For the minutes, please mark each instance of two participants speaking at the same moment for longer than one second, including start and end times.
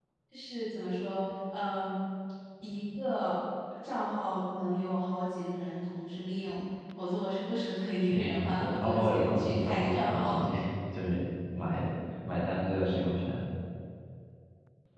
8.1-10.5

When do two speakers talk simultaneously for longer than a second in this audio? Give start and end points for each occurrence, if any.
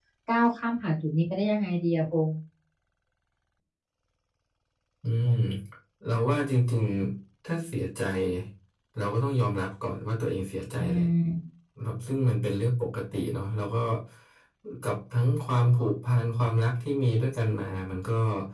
none

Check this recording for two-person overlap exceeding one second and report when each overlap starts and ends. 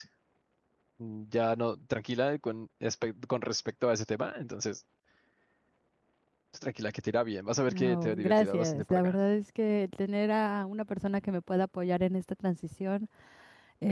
7.7-9.2

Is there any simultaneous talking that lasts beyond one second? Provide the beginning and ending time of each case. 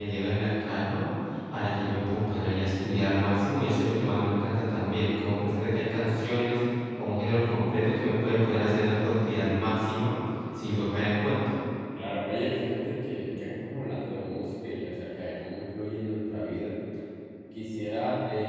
none

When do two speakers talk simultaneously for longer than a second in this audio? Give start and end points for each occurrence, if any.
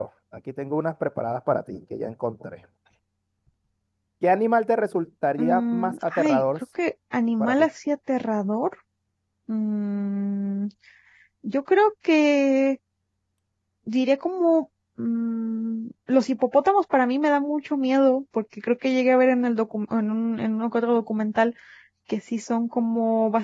5.4-6.6

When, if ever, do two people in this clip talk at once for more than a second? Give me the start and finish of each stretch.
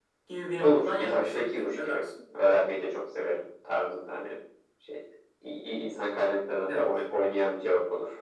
0.6-2.0

